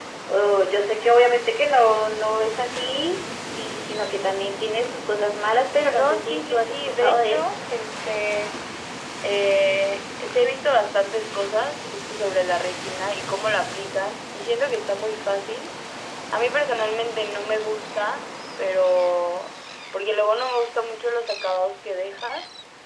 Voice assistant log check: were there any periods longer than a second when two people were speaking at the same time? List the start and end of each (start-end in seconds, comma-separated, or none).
5.9-7.4